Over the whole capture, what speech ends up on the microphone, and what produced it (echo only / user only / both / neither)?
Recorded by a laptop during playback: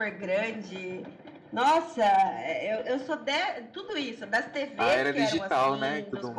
both